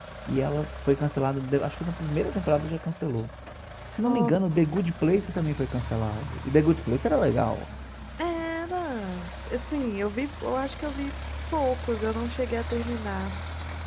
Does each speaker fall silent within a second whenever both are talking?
Yes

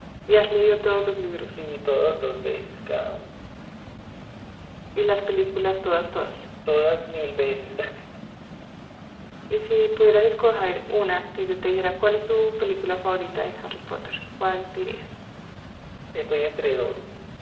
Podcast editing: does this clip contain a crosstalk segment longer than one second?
No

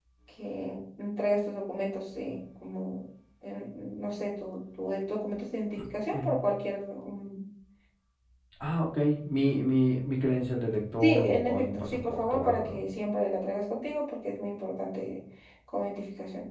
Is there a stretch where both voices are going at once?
Yes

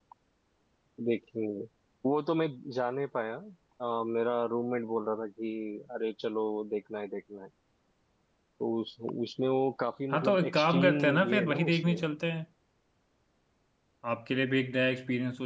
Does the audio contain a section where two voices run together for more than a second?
Yes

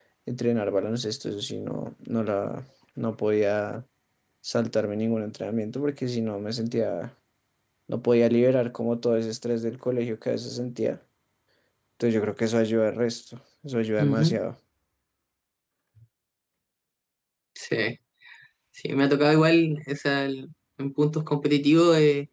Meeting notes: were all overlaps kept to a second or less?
Yes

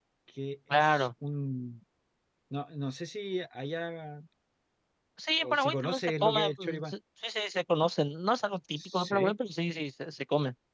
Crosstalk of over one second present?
Yes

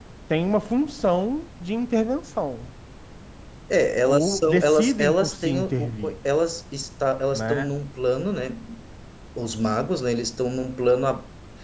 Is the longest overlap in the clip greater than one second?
Yes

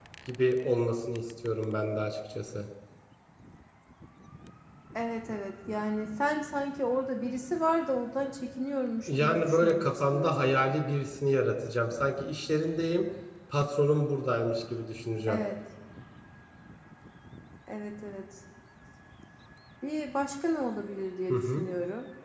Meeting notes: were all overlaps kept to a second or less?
No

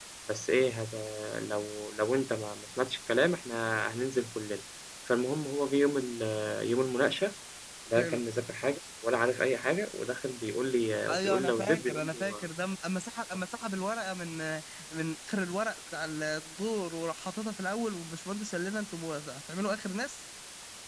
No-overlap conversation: No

